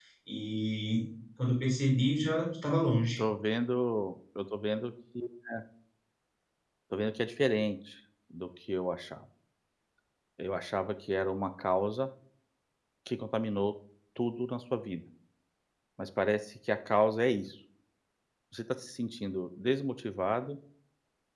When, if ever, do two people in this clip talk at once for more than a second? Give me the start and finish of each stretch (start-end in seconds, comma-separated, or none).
none